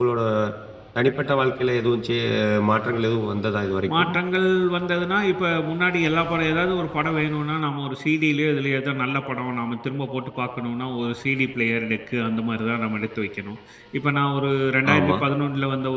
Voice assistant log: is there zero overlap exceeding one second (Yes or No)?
Yes